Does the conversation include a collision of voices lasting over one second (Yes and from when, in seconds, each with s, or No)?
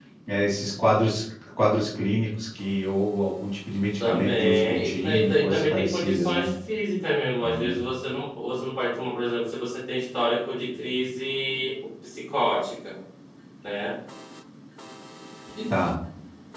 Yes, from 4.0 s